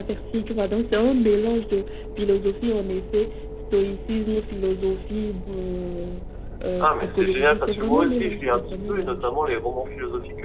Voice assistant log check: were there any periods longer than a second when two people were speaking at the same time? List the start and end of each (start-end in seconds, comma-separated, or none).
6.8-9.2